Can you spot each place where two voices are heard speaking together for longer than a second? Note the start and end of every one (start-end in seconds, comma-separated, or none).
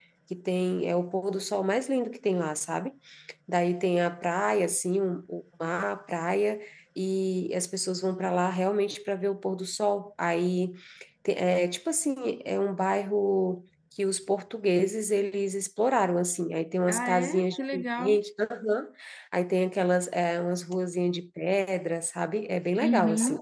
16.9-18.2